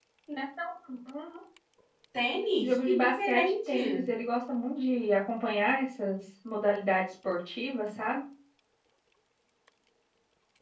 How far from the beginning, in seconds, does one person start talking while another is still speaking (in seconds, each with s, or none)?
2.6 s